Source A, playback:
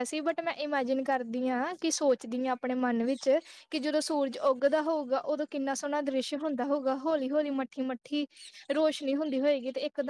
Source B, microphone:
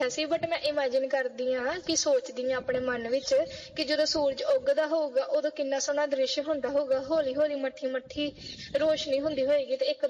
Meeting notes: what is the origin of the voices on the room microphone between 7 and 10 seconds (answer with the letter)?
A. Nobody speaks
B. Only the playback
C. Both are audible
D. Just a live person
B